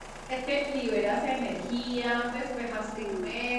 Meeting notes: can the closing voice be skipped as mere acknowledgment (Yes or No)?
Yes